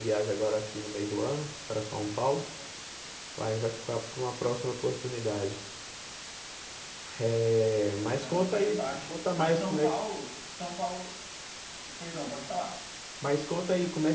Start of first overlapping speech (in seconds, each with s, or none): 7.9 s